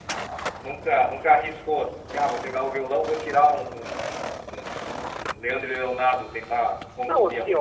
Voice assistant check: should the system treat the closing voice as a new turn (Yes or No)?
Yes